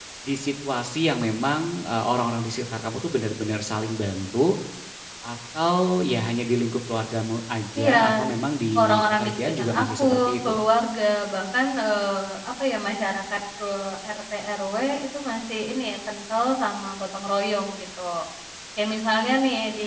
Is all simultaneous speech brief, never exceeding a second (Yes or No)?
No